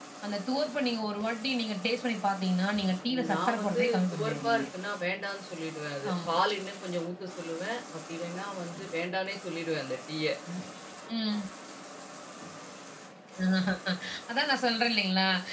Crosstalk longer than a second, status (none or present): present